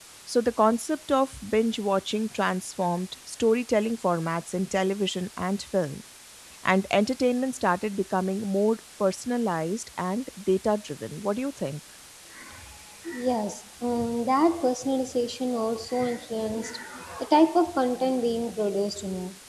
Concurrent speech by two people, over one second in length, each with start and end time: none

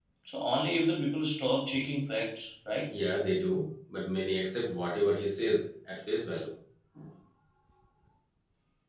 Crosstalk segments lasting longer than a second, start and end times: none

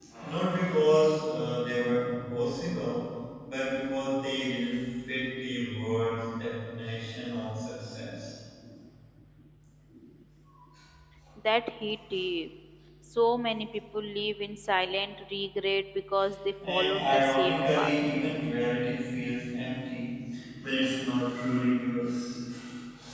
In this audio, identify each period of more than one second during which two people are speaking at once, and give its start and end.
16.7-17.9

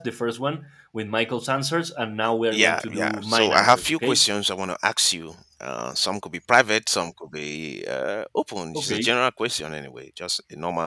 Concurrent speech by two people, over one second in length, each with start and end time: 2.5-4.2

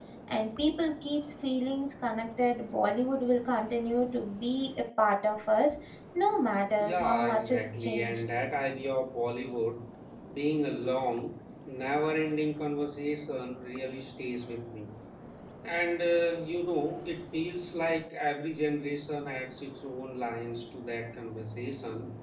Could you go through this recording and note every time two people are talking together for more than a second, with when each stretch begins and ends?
6.8-8.2

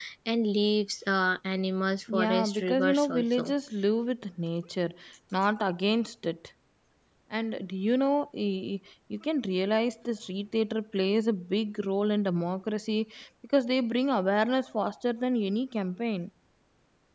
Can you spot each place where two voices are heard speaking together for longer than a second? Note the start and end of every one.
2.1-3.5

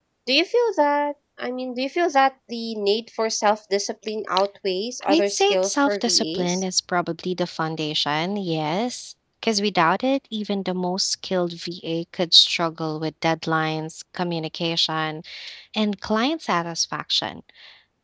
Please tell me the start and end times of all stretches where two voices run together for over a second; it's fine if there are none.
5.1-6.6

